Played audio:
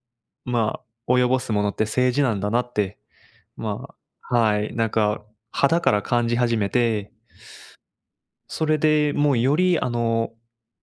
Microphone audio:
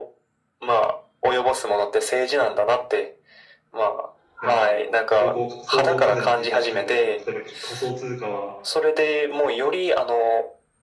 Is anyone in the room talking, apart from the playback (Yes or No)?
Yes